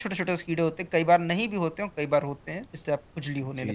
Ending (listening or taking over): taking over